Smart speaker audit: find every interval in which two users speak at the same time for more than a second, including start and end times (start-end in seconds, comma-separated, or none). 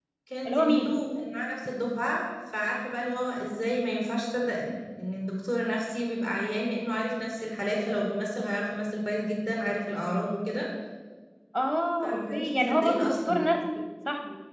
12.0-13.3